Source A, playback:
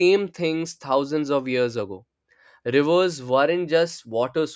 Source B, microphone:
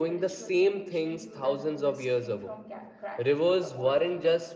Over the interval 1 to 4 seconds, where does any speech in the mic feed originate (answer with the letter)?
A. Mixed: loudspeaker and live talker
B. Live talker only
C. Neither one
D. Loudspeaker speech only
A